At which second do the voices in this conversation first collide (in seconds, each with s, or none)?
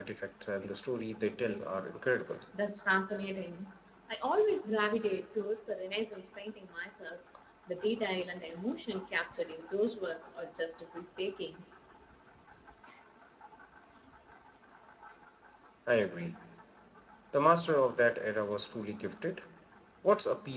none